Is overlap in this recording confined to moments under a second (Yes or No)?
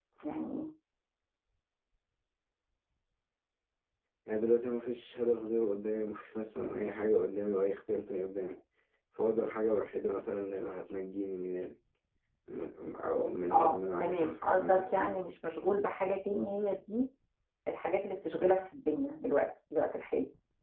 No